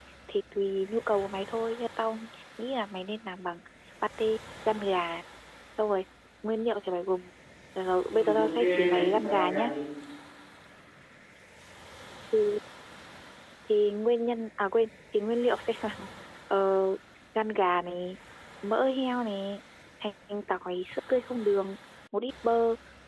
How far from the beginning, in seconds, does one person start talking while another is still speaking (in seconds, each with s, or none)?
8.1 s